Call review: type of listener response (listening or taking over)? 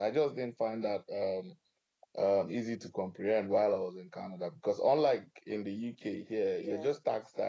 listening